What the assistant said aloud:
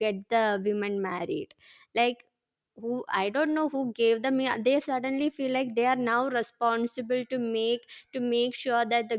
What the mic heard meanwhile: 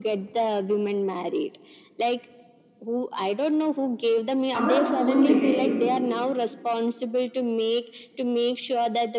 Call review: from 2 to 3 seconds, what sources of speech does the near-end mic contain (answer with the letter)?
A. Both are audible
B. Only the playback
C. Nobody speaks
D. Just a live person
B